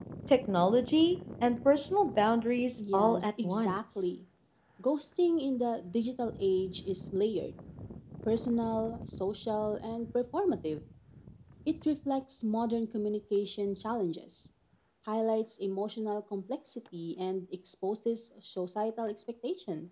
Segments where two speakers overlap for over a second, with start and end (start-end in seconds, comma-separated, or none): 2.8-4.1